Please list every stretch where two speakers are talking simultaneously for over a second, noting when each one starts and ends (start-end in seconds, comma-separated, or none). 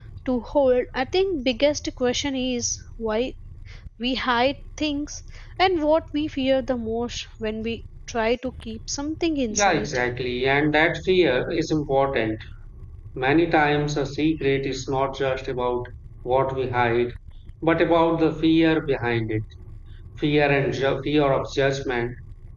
none